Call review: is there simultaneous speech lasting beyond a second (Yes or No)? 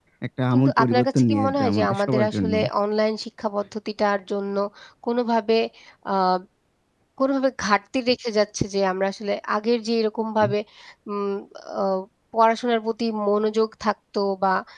Yes